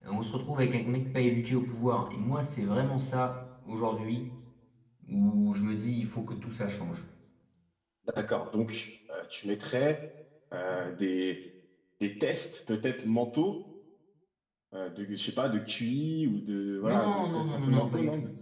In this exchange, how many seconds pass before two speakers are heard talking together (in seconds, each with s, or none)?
16.8 s